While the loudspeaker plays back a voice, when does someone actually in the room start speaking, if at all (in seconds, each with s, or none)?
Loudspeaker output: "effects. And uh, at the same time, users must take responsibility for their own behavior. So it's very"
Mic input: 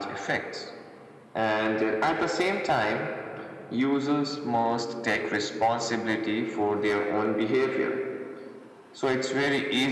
none